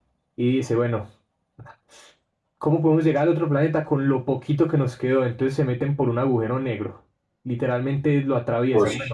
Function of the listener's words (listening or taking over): listening